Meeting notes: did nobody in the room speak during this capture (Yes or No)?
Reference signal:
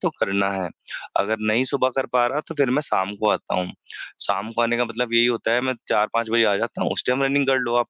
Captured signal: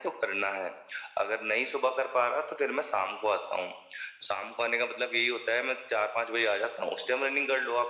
Yes